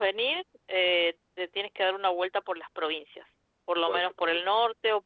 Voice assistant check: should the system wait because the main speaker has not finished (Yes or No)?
Yes